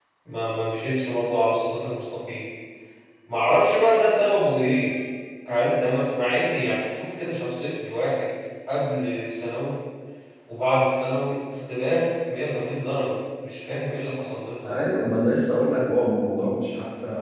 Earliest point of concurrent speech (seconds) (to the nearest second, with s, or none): none